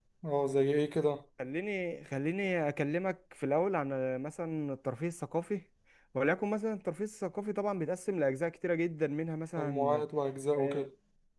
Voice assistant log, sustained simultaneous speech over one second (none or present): none